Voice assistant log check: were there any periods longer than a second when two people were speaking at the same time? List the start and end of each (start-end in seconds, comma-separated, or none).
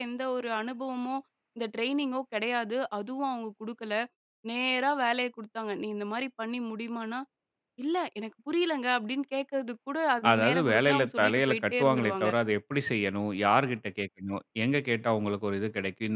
10.3-12.3